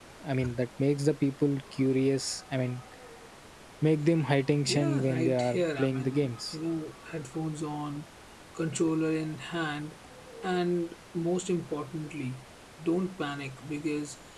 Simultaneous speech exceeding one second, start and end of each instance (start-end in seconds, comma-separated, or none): 4.6-6.5